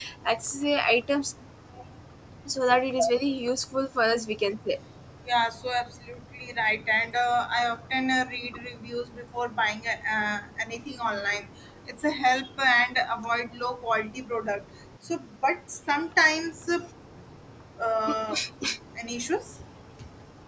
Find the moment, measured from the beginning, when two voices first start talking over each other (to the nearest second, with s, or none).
none